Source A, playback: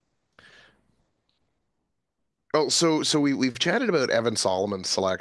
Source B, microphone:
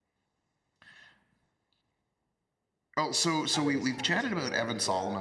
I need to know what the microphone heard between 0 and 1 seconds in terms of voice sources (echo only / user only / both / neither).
neither